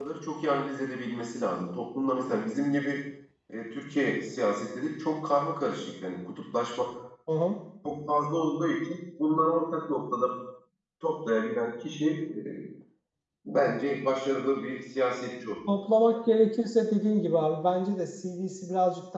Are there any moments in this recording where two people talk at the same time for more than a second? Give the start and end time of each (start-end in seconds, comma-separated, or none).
none